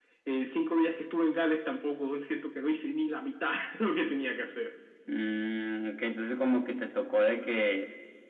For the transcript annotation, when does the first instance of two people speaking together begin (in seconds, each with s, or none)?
none